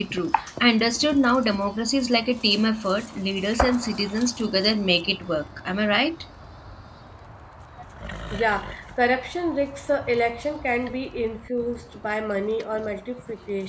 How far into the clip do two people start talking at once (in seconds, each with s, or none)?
none